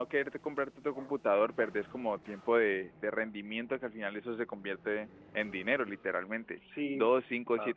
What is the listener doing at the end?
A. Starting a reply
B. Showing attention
B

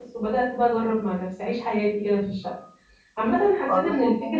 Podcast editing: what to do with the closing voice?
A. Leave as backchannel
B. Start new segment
A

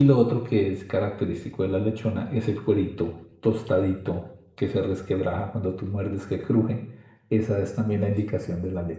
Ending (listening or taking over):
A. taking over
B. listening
B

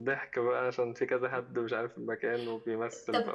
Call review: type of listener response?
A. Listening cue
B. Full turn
B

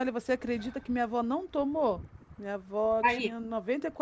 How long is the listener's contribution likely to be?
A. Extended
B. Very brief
B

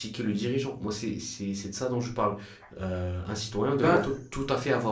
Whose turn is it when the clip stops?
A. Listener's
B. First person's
B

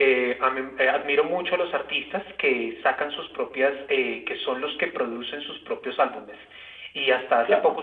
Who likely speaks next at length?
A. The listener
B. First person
B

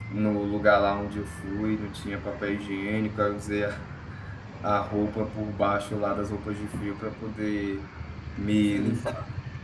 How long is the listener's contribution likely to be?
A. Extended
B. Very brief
B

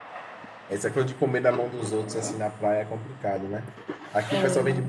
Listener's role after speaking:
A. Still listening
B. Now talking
A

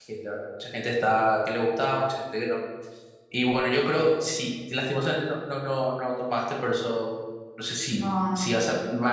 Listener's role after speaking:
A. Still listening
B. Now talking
A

